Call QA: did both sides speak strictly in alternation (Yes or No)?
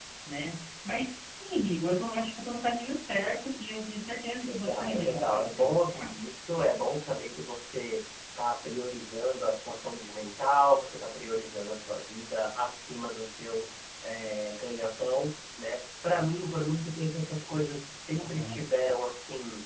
No